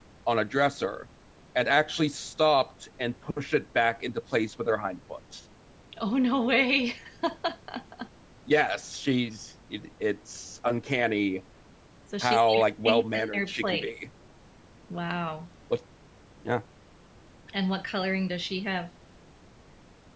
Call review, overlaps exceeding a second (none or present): present